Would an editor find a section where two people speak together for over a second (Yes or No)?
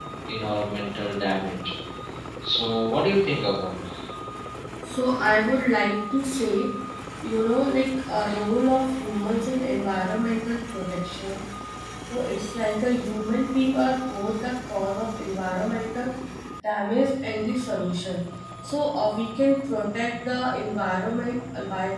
No